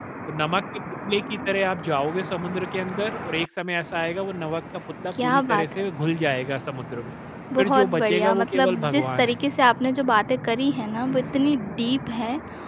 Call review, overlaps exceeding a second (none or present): present